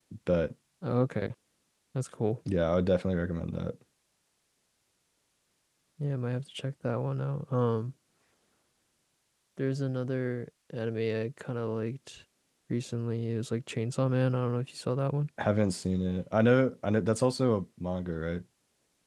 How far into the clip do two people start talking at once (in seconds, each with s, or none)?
none